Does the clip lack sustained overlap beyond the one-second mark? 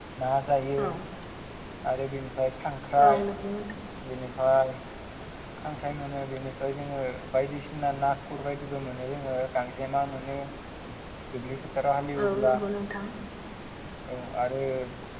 Yes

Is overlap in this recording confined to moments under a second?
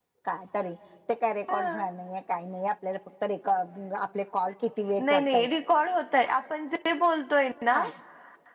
Yes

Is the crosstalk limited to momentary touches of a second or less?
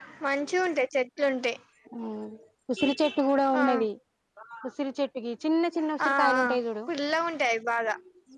Yes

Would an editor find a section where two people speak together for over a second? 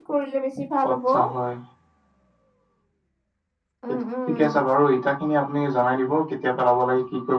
No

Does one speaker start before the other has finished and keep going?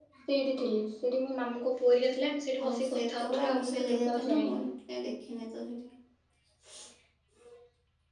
Yes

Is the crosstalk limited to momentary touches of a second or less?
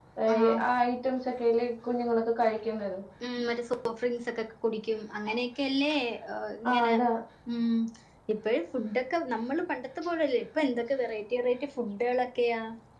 Yes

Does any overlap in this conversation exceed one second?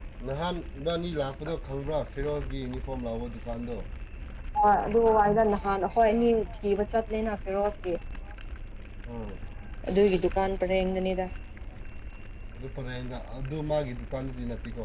No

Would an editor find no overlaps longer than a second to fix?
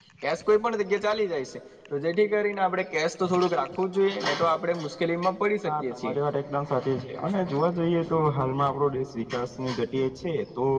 Yes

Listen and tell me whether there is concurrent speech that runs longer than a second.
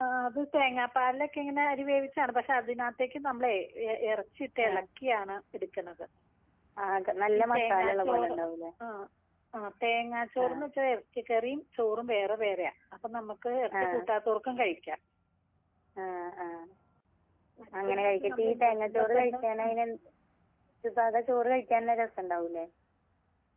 Yes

